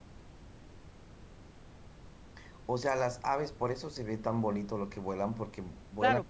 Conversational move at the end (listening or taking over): taking over